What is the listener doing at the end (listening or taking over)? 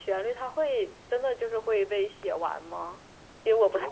taking over